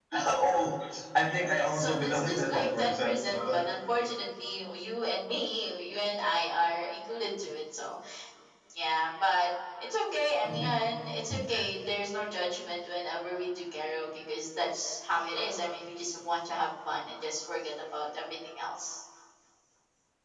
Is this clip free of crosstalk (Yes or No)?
No